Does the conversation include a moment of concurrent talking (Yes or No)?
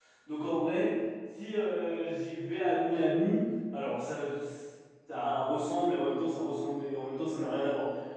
No